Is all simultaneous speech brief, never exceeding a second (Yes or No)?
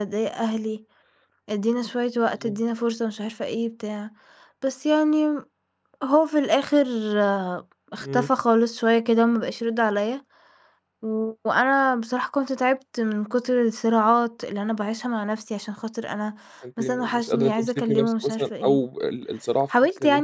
No